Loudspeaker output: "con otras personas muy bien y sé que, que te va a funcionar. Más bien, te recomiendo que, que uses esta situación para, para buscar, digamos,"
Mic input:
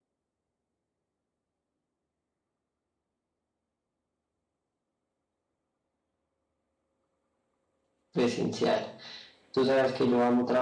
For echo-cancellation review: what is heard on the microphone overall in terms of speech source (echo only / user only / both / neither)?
user only